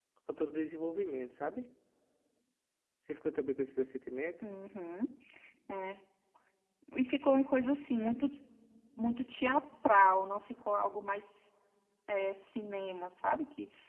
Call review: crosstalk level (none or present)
none